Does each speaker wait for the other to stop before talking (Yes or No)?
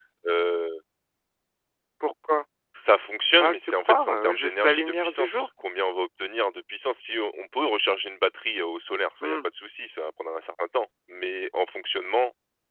No